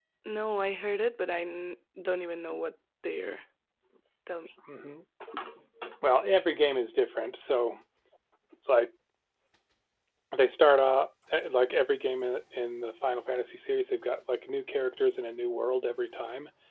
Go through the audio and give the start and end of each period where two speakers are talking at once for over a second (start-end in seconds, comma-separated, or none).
none